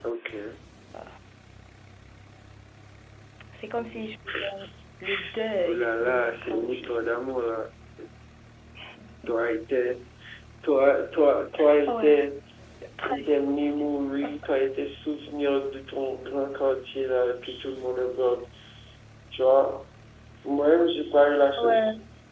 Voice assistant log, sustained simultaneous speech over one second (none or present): present